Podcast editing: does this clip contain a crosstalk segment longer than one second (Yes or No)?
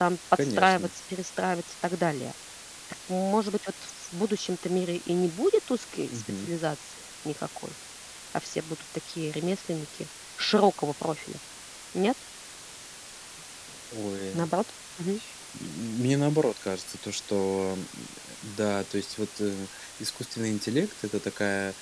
No